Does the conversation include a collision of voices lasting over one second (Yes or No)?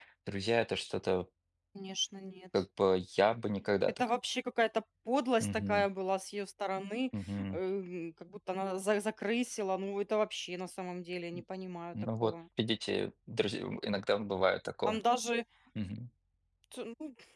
No